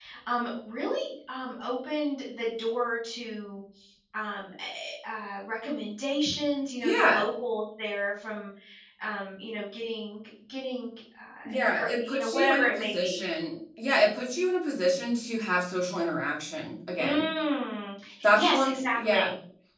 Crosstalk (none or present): present